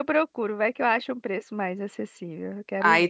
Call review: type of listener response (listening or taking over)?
taking over